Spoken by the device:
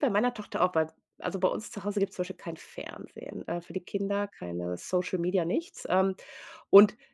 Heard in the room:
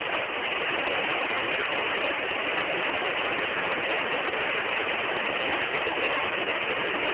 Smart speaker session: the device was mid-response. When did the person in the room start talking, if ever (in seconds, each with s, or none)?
none